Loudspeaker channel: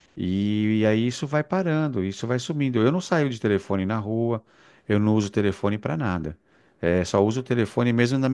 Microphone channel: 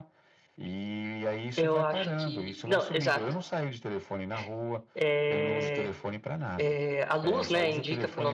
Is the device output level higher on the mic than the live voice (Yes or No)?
No